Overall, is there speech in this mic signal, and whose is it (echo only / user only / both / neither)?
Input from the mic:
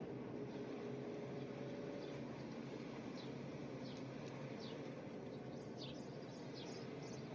neither